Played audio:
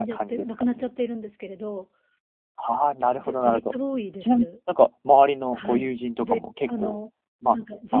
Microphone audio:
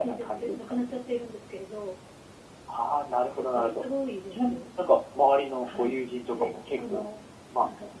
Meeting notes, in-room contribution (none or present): none